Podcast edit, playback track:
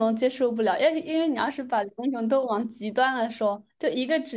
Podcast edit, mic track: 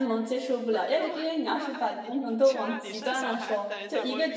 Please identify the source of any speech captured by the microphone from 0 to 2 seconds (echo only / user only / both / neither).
both